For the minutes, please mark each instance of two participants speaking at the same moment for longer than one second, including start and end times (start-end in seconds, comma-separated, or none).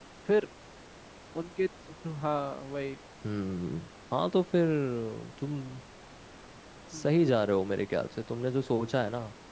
none